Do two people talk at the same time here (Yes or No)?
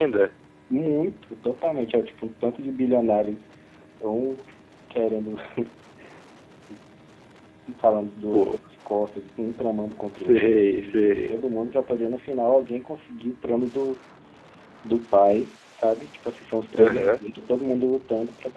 Yes